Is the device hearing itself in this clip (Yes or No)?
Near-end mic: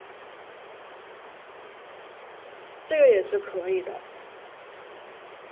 No